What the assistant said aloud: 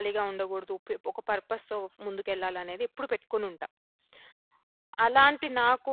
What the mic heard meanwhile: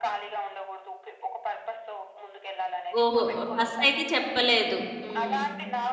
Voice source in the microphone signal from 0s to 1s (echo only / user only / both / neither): echo only